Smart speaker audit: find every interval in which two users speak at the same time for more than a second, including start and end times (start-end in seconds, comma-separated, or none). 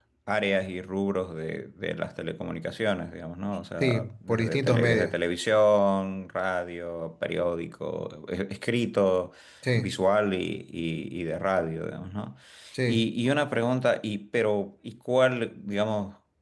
3.8-5.2